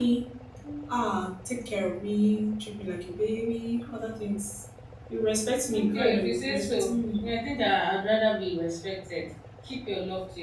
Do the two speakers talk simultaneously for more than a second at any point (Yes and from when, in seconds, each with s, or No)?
Yes, from 5.7 s